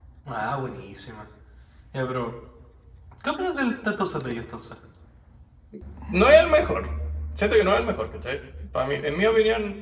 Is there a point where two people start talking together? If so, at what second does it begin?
none

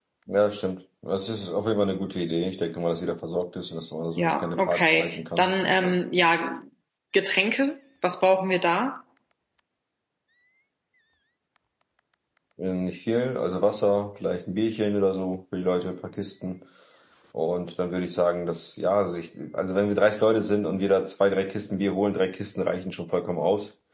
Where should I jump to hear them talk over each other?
4.2 s

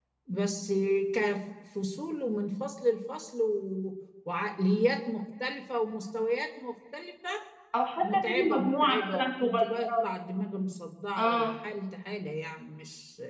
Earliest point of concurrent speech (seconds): 8.1 s

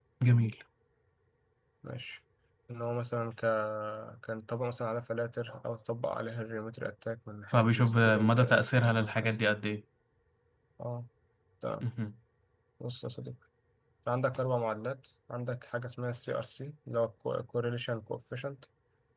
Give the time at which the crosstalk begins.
7.5 s

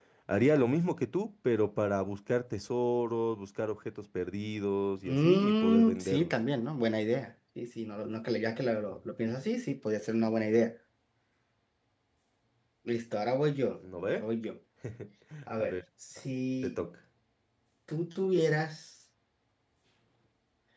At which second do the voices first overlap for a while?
5.0 s

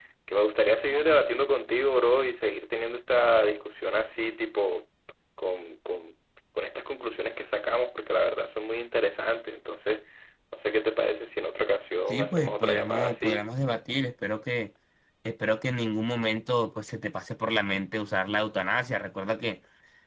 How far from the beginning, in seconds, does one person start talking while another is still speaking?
12.1 s

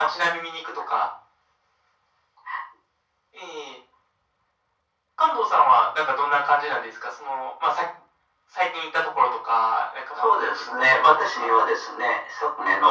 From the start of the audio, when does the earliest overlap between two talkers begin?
10.1 s

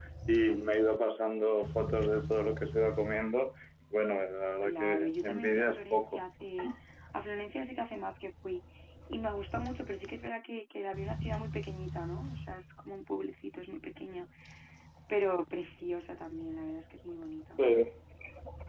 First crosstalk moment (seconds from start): 4.6 s

